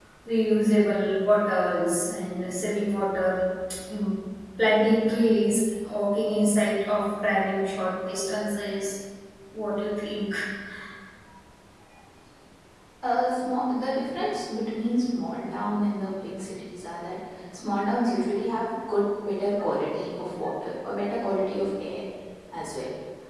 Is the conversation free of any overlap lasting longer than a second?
Yes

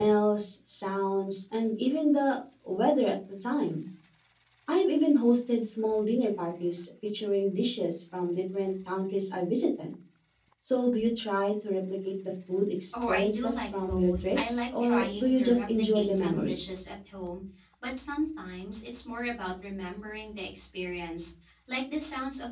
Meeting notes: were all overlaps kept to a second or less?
No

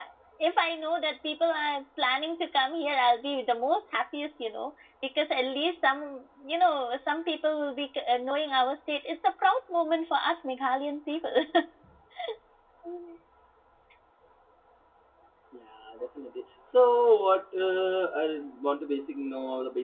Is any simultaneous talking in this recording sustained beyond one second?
No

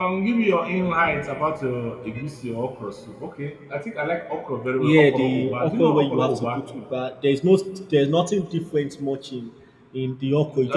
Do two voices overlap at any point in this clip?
Yes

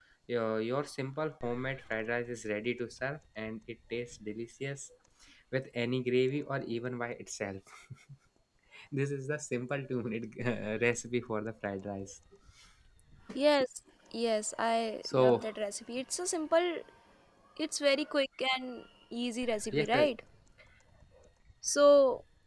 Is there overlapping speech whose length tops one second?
No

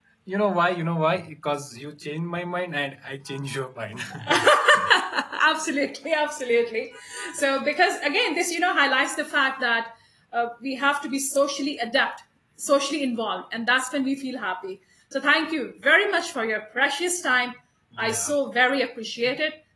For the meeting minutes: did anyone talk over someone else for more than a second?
No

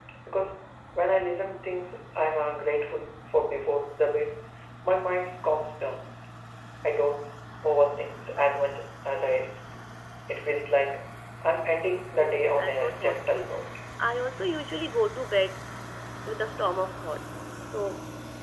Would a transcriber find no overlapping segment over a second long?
No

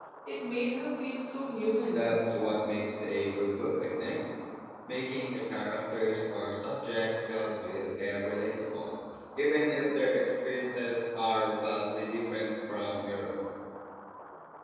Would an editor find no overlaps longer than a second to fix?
Yes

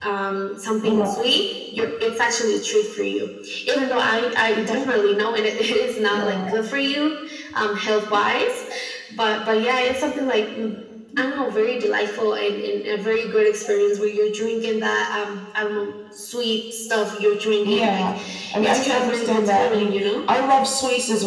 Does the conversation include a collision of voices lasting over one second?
Yes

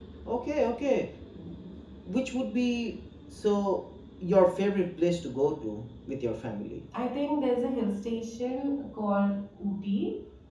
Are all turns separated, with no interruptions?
Yes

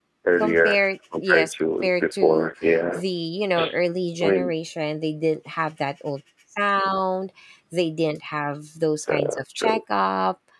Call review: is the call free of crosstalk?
No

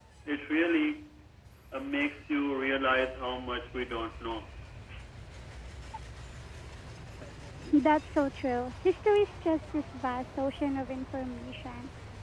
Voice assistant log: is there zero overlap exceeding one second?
Yes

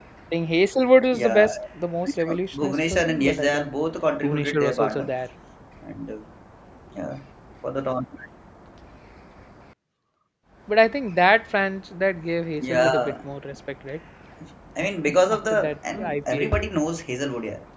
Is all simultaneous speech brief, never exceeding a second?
No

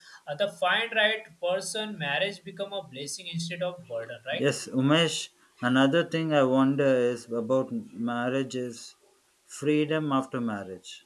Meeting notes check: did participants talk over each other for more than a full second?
No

